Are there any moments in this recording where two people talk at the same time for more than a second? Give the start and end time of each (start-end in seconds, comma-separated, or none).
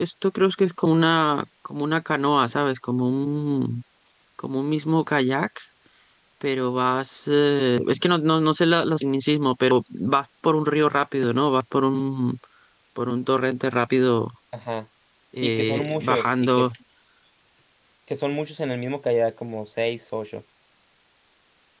15.4-16.6